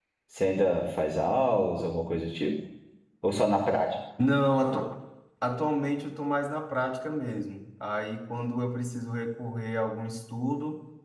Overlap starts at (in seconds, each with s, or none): none